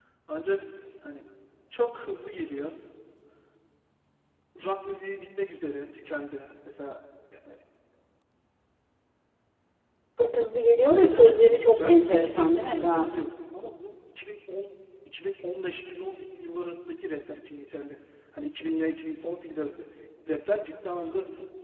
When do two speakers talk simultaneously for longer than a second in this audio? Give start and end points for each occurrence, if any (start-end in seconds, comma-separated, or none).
10.9-13.1